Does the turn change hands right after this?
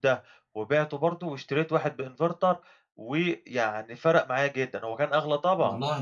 Yes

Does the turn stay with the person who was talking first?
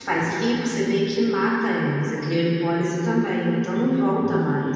No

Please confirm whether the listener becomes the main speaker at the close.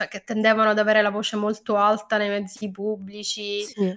No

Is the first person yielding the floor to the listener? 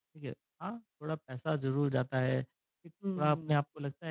No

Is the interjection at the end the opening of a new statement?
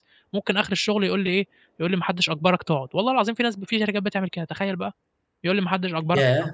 Yes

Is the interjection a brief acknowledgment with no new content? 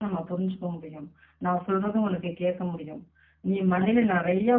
Yes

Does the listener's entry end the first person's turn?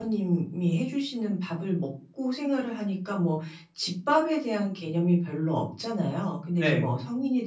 No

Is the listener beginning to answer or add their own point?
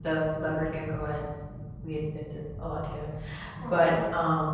No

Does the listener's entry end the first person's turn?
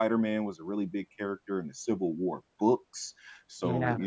No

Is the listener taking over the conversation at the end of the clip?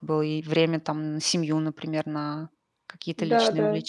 Yes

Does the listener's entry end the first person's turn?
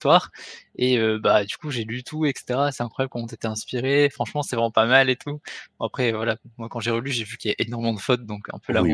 Yes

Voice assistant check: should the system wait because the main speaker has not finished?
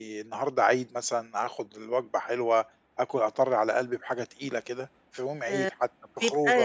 No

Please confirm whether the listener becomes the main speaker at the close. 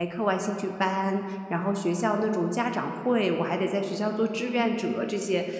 No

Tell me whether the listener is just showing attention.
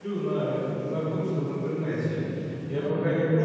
Yes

